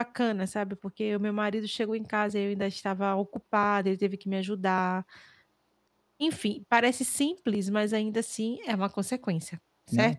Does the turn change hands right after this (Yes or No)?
Yes